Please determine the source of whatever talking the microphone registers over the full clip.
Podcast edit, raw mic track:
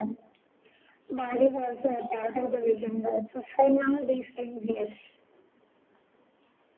echo only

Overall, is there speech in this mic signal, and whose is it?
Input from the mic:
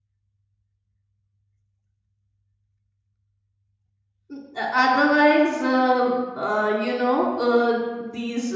user only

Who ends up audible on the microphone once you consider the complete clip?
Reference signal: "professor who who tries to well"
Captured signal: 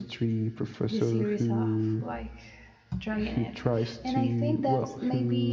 both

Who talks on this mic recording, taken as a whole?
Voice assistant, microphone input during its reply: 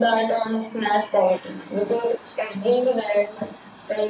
echo only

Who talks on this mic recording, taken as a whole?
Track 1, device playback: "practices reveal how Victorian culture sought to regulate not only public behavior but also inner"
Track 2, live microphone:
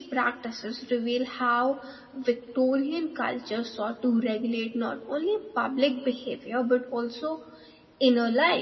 echo only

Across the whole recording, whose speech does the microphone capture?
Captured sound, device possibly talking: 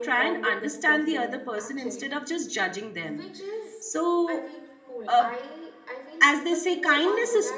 both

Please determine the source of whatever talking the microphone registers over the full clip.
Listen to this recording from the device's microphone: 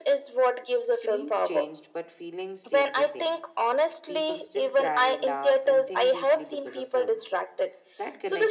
both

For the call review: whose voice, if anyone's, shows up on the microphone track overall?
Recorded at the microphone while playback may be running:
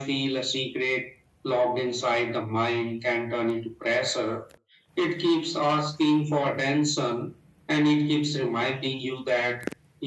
echo only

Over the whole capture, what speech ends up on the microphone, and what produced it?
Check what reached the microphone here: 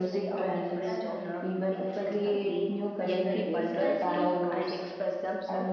both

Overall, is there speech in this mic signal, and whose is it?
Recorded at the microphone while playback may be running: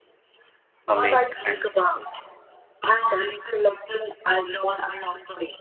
both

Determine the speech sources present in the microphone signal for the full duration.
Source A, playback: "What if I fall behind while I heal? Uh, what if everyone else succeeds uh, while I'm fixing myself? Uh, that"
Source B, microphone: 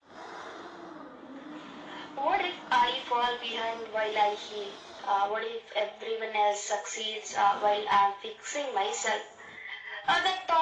echo only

